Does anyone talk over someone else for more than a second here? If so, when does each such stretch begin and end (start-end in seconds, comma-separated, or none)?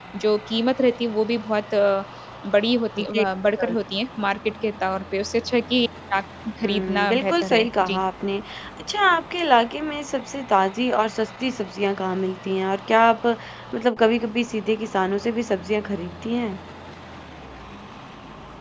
6.6-8.0